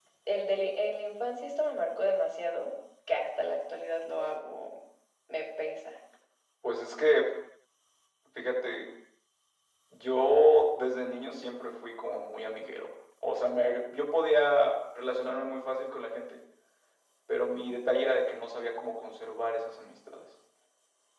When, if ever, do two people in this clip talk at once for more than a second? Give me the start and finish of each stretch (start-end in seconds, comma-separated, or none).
none